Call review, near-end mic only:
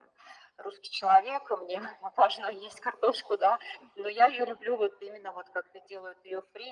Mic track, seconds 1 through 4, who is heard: echo only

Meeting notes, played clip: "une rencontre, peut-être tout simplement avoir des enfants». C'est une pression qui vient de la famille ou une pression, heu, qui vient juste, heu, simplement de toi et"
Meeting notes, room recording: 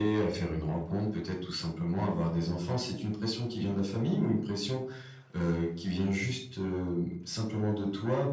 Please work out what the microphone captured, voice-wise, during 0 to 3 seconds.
echo only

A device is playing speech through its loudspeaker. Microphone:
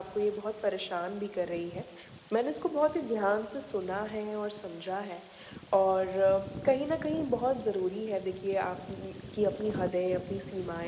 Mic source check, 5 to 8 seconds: echo only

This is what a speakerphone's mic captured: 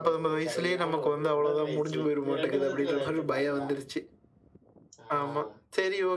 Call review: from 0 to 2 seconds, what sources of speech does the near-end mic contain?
both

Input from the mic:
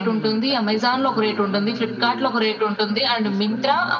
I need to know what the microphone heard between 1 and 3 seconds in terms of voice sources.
both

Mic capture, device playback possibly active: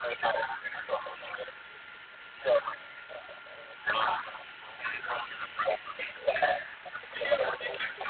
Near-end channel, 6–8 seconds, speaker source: both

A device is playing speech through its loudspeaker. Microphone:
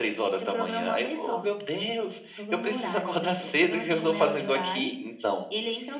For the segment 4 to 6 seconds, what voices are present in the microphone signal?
echo only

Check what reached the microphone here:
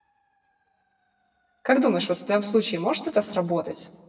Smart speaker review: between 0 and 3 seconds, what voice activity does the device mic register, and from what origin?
user only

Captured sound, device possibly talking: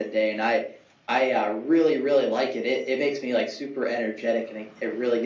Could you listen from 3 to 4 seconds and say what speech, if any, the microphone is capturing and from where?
echo only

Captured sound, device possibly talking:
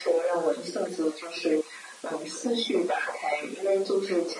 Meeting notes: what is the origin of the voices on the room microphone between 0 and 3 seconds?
echo only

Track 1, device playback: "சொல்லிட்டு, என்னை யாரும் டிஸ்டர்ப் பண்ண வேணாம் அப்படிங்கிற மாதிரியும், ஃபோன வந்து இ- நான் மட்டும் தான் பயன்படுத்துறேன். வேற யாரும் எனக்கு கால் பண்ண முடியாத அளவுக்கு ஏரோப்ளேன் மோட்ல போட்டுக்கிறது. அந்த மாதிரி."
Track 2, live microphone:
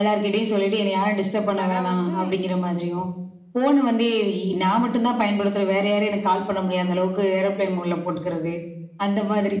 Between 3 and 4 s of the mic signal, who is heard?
echo only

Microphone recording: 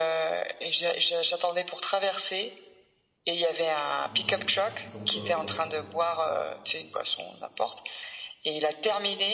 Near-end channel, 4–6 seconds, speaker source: both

